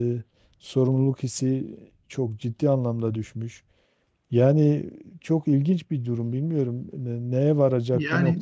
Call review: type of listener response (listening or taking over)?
listening